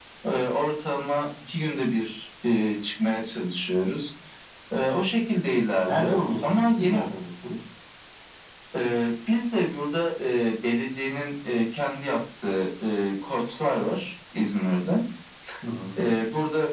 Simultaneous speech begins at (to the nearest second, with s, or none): 6 s